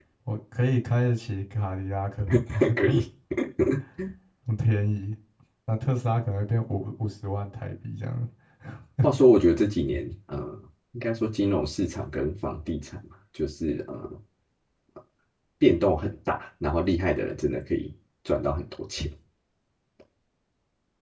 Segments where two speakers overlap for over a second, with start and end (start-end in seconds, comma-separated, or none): none